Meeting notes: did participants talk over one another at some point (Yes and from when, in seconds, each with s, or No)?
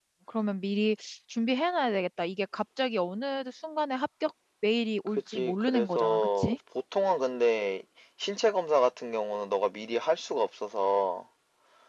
Yes, from 5.3 s